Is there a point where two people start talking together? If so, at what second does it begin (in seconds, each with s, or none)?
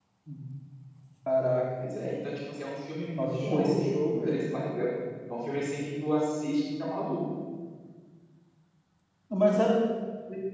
3.2 s